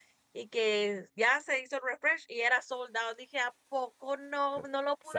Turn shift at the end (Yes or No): Yes